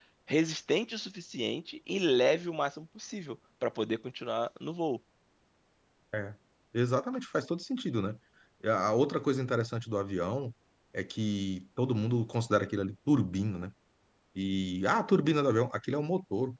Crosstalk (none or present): none